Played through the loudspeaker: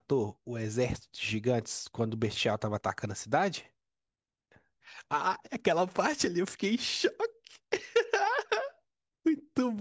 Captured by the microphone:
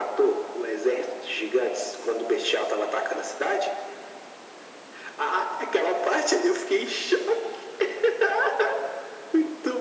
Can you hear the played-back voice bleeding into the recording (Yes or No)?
Yes